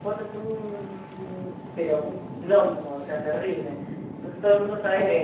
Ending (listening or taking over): listening